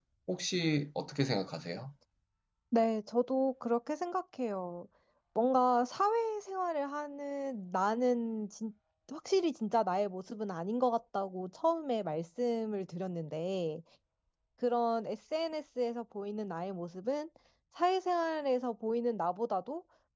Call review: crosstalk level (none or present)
none